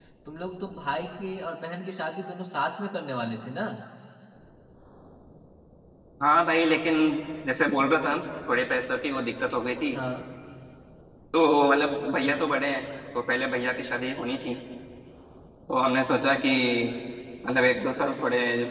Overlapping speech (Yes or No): No